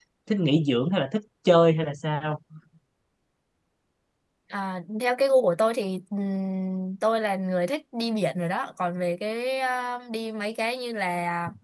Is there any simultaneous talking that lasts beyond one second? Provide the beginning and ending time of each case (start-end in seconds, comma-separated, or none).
none